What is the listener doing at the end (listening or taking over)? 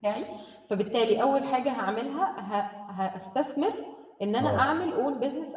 listening